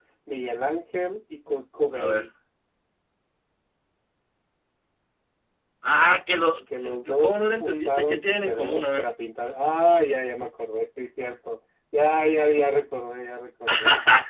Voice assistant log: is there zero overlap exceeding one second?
No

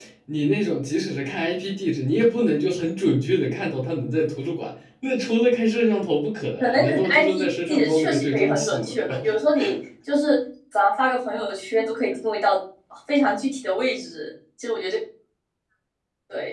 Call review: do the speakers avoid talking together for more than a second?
No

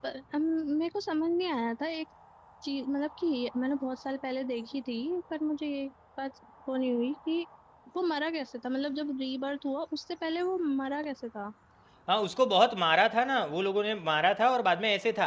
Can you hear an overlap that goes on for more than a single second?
No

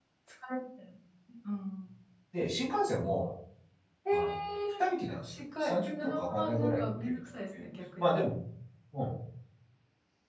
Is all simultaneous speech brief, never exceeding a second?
No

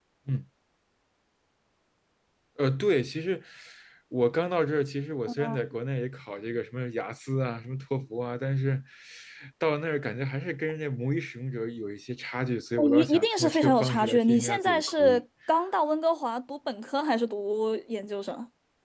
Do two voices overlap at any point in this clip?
Yes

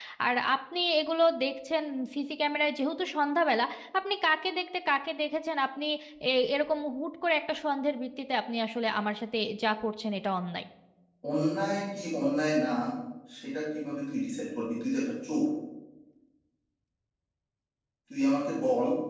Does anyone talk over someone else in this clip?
No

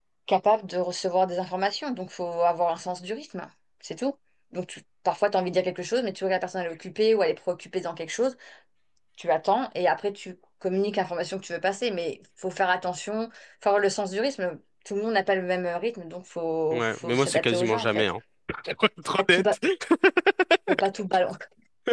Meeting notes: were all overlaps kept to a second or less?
No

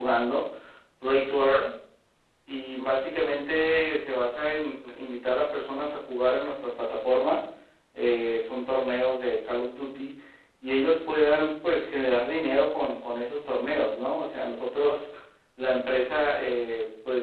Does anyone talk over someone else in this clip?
No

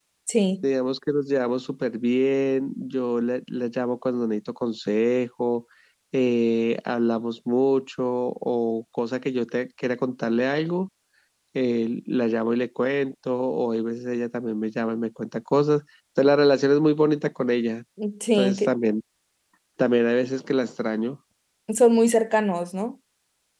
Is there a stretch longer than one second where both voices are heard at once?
No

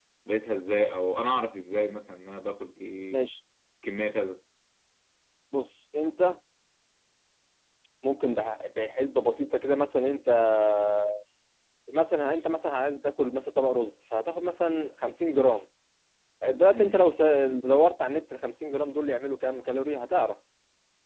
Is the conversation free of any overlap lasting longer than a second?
Yes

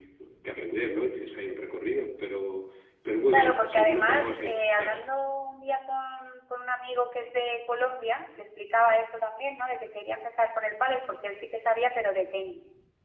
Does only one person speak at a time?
No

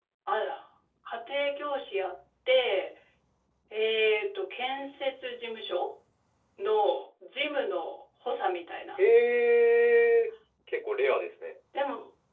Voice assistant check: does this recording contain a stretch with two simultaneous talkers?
No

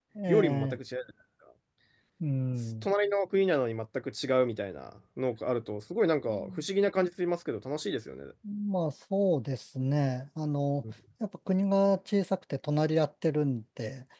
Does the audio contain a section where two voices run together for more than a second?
No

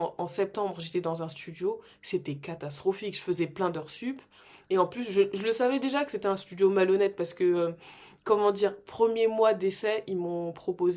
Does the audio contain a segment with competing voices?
No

